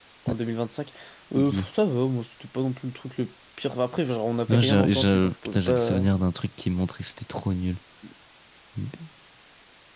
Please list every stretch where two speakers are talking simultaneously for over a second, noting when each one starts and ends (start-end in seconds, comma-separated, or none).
4.5-6.0